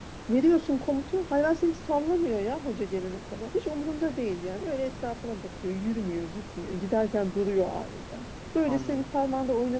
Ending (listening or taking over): listening